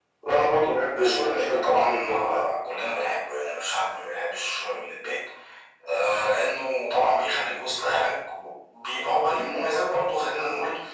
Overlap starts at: 1.0 s

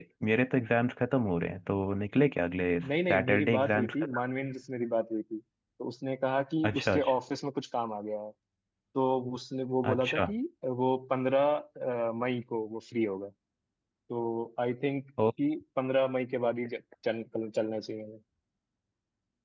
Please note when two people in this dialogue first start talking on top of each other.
2.9 s

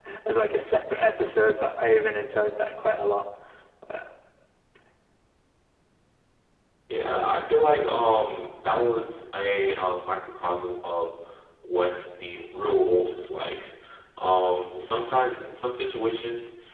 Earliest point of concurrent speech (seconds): none

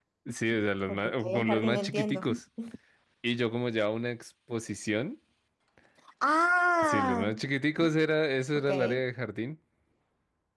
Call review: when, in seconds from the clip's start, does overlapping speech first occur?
0.9 s

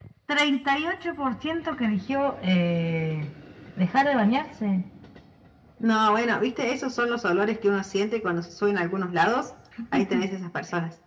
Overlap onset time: none

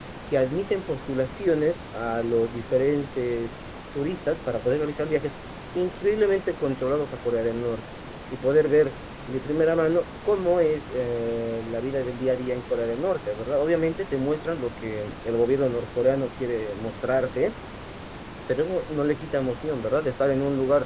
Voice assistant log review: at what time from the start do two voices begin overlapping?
none

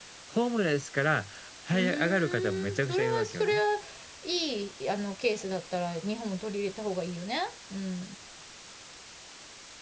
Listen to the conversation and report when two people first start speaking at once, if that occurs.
1.7 s

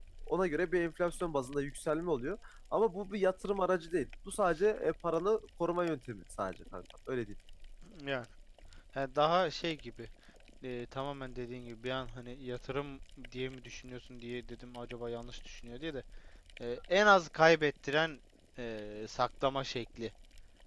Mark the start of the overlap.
none

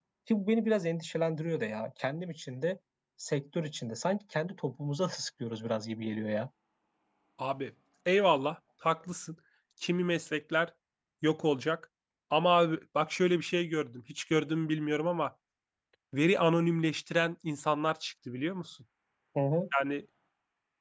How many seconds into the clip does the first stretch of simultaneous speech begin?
none

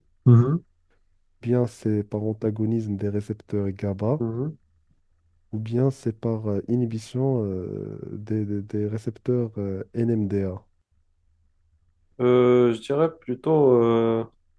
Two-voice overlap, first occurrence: none

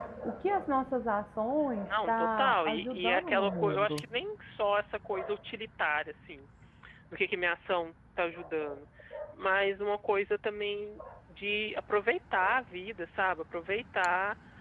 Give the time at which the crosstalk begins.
1.8 s

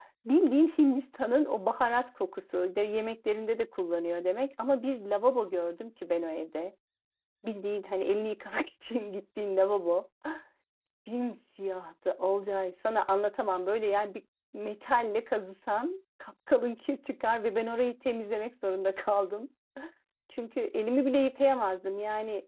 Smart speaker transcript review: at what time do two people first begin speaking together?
none

